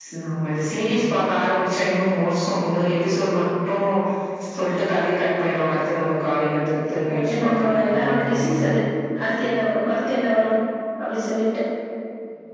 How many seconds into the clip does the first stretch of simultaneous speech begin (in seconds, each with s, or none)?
7.1 s